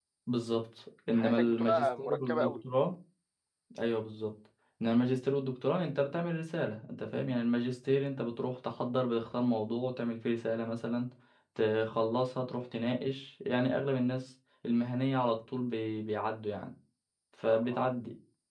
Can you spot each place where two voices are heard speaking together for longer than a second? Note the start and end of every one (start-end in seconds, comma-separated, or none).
1.1-2.6